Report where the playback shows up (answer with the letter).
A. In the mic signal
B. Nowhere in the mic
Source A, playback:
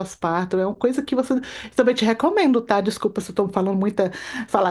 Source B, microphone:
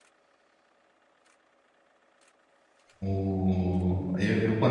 B